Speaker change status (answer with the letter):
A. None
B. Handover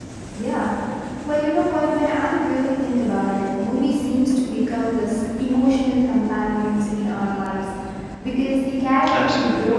A